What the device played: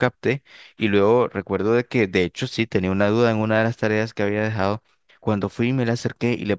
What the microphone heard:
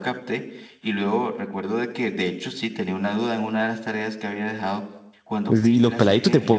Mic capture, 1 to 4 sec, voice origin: echo only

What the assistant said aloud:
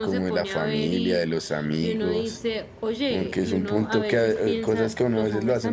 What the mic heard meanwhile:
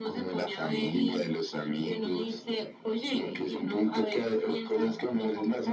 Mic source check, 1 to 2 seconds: echo only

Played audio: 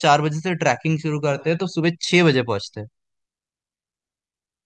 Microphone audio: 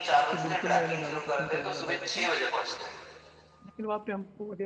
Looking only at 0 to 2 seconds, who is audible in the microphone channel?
both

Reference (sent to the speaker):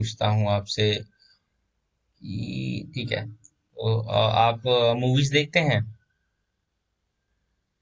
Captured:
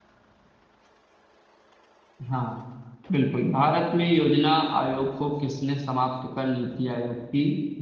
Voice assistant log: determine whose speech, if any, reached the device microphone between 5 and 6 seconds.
user only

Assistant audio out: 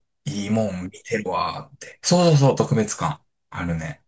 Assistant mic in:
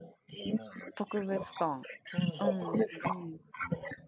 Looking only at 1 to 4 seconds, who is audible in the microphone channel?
both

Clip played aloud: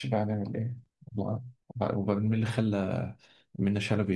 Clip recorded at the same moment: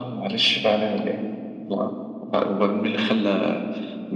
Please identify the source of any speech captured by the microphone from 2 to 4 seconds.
echo only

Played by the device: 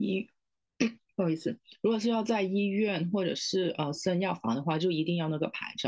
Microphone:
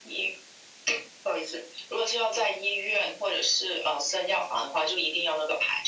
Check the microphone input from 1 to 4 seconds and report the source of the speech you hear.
echo only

